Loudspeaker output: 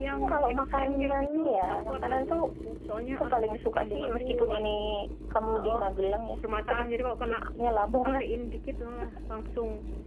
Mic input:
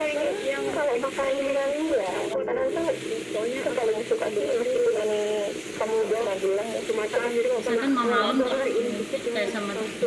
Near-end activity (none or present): present